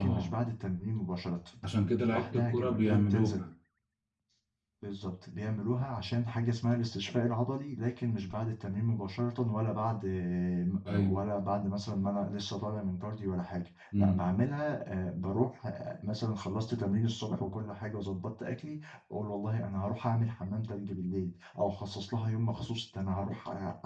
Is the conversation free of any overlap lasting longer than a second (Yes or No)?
No